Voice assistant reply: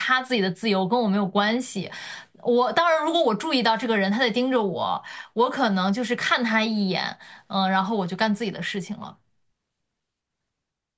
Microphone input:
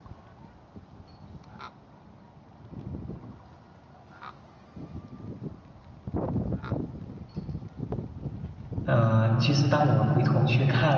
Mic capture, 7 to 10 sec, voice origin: user only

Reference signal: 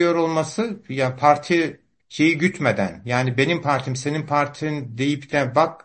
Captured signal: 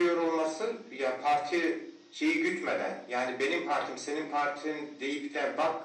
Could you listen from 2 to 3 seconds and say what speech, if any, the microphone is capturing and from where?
echo only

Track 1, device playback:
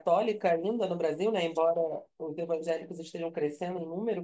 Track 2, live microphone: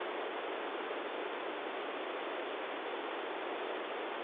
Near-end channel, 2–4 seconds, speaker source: neither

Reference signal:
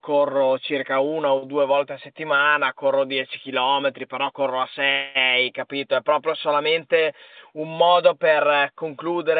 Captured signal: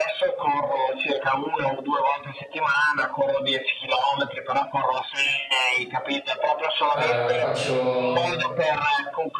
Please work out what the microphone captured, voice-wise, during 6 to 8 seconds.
both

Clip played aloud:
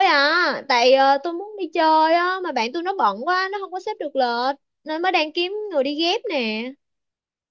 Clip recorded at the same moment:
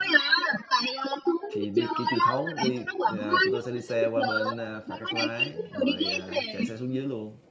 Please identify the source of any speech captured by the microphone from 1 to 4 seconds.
both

